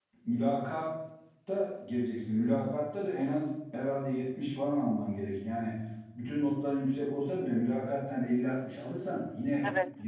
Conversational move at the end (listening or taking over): taking over